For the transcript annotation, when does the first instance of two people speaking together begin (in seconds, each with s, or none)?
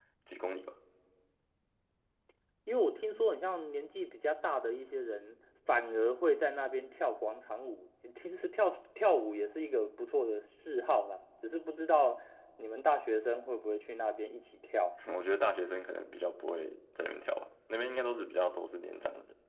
none